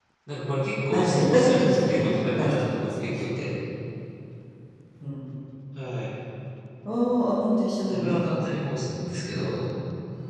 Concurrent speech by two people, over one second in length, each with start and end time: 0.9-3.6

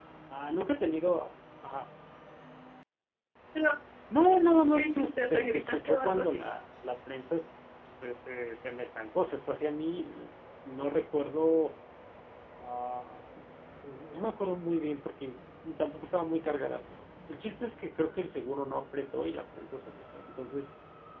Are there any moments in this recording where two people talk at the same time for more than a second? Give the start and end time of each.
4.7-6.4

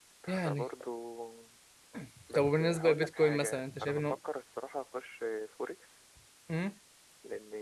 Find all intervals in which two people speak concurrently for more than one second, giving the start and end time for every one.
2.3-4.2

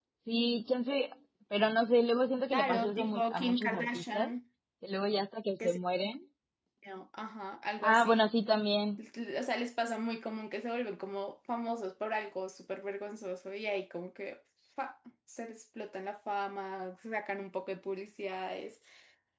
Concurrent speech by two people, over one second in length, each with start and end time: 2.5-4.3

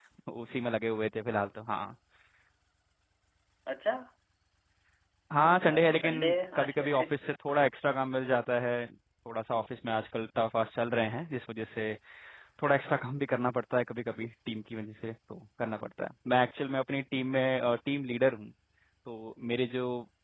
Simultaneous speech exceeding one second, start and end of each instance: 5.4-7.0

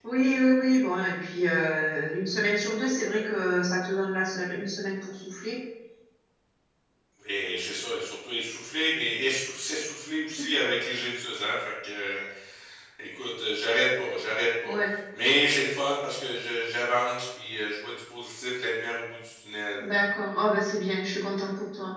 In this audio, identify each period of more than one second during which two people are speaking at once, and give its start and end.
none

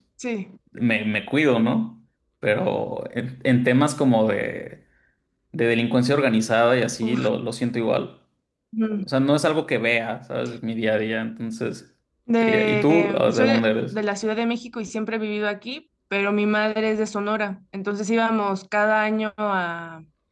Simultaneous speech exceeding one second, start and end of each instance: 12.4-14.0

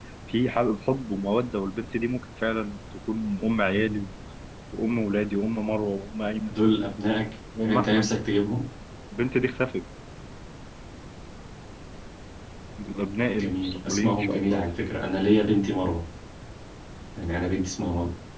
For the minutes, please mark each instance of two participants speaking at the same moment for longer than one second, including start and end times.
13.3-14.7

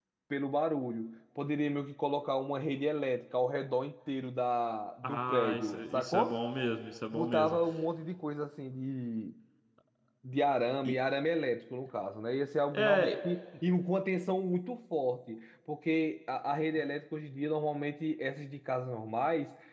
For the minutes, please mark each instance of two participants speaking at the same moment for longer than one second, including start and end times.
5.0-6.4

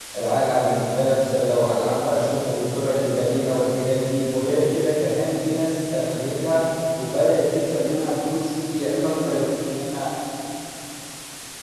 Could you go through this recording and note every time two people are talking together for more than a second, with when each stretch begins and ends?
none

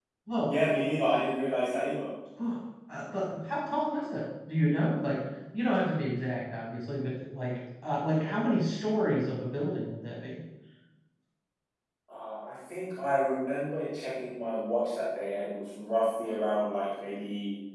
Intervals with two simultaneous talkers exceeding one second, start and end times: none

